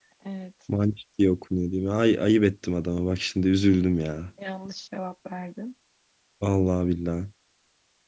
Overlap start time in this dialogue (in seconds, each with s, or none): none